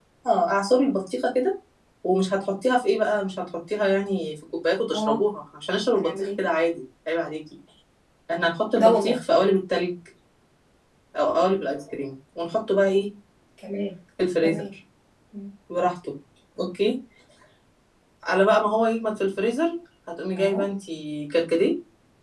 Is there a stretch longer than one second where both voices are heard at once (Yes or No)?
No